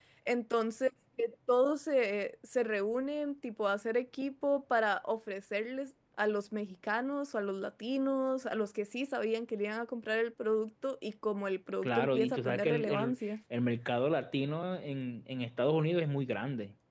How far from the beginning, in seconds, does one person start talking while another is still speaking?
11.8 s

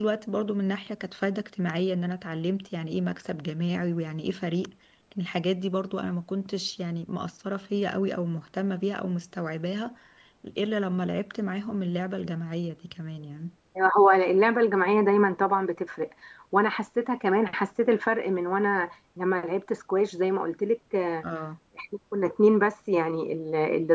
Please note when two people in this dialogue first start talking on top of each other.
none

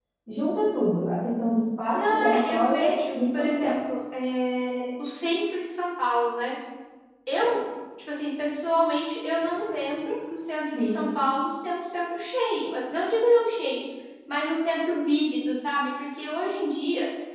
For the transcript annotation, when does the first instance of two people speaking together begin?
1.9 s

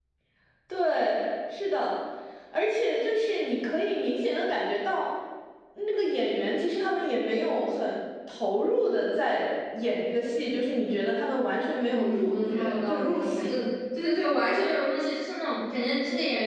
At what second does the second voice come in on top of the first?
11.8 s

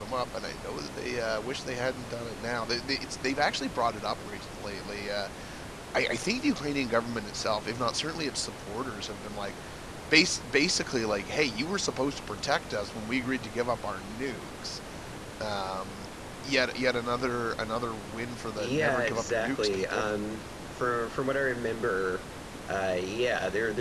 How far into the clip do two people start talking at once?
18.6 s

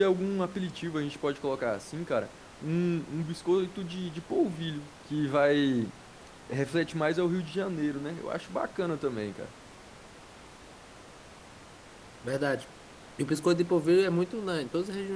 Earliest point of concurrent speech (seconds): none

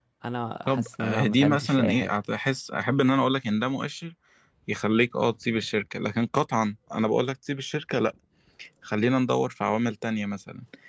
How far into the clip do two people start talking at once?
0.7 s

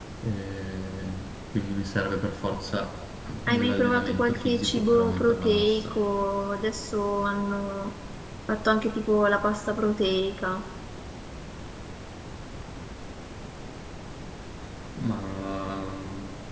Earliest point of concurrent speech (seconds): 3.5 s

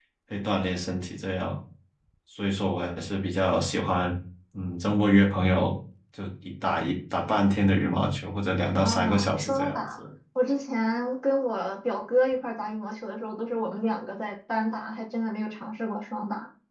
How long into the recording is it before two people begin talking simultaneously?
8.8 s

